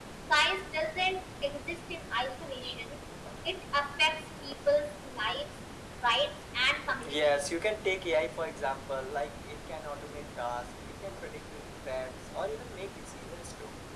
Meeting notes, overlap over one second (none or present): none